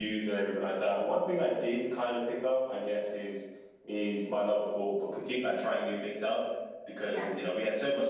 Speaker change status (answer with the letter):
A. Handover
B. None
B